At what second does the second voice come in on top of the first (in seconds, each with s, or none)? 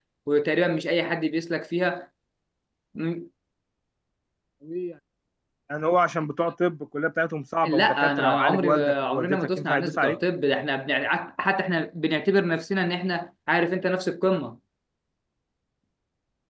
7.6 s